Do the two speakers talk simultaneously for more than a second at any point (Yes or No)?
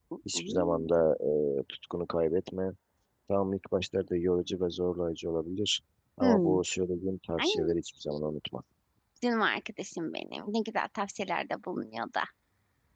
No